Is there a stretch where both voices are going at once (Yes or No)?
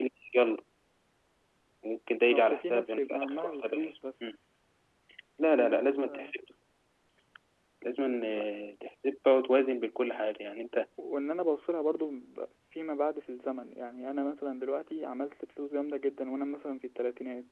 Yes